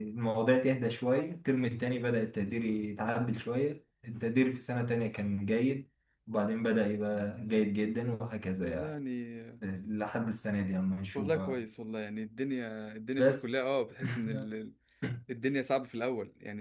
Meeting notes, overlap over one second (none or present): none